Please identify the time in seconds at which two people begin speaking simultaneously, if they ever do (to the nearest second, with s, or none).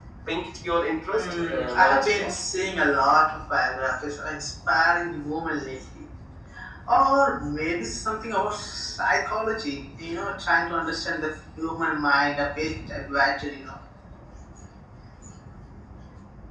1 s